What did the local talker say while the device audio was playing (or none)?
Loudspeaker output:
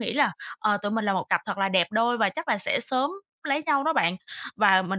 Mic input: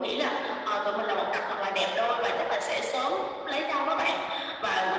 none